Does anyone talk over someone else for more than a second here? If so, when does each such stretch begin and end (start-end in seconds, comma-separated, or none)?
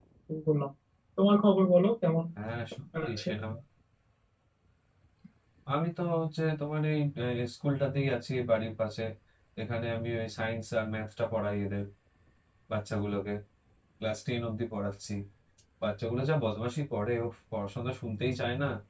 none